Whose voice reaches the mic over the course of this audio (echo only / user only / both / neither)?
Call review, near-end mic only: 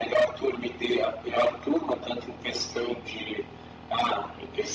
echo only